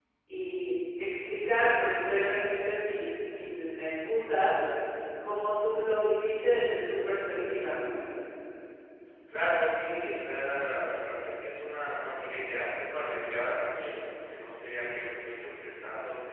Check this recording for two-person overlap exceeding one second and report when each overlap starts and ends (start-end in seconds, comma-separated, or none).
none